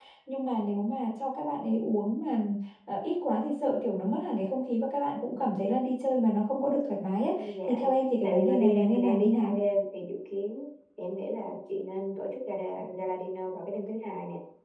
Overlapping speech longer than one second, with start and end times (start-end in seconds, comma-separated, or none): 8.2-9.6